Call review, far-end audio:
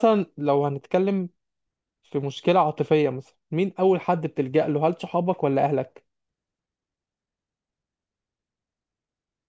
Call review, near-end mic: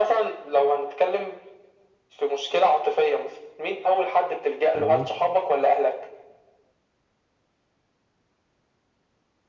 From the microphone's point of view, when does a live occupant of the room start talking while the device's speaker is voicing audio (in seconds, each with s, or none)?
4.7 s